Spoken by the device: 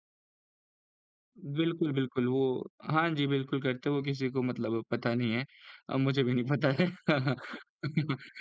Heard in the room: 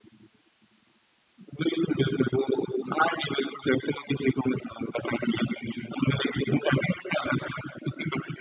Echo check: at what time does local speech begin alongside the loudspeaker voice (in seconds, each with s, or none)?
none